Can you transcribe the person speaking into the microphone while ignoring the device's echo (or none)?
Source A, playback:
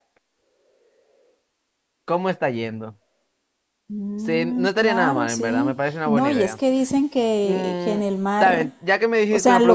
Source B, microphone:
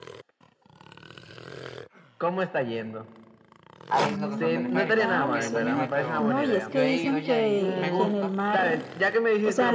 hay lo que son teleféricos, supongo que allá también hay, pero yo he ido ya y me gusta,